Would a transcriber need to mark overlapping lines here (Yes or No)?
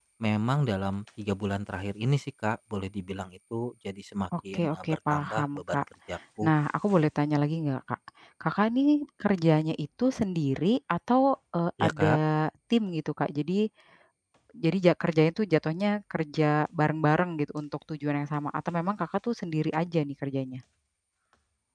Yes